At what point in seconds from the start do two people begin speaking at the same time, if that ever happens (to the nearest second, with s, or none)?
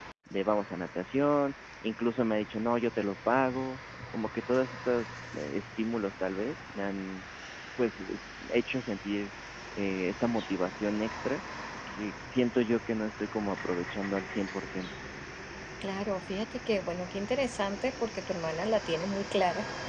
none